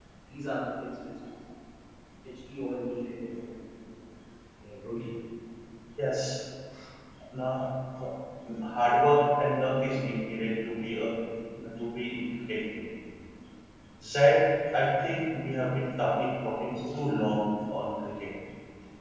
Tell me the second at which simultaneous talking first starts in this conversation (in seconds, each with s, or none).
none